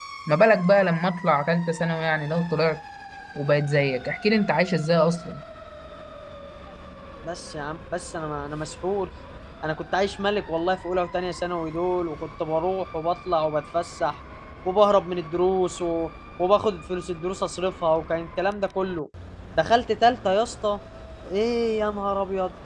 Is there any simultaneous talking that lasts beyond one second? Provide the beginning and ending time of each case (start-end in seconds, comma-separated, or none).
none